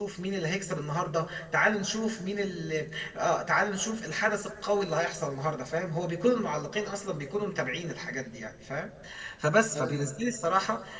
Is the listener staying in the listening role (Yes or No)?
Yes